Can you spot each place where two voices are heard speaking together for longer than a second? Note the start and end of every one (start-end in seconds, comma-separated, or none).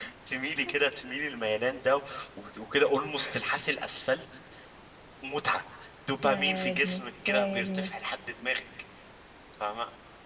6.2-7.9